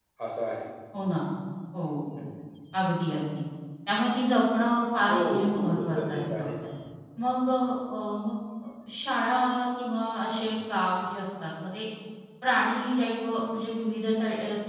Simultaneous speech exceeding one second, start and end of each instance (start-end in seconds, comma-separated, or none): 5.1-6.5